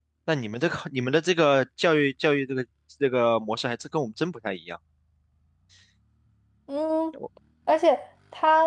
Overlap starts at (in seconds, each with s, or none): none